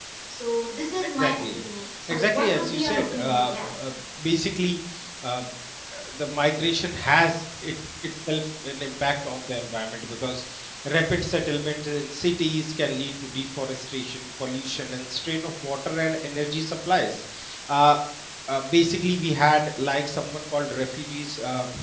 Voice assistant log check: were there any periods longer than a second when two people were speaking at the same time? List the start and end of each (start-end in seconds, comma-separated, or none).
2.1-3.7